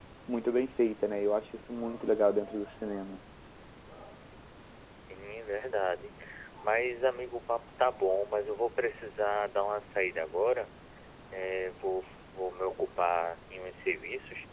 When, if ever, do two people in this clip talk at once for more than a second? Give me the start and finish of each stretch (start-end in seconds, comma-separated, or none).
none